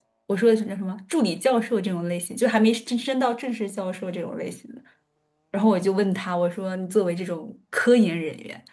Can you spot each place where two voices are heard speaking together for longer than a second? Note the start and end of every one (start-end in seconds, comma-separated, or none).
none